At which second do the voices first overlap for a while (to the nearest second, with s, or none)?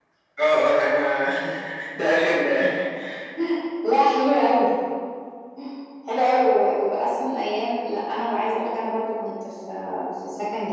none